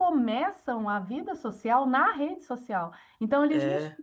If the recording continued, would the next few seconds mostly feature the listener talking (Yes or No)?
No